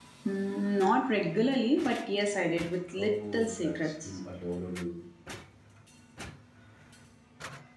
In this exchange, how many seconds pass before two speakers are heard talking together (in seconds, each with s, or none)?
3.0 s